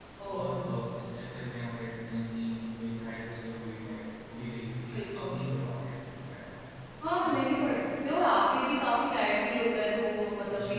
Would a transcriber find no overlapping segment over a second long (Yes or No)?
Yes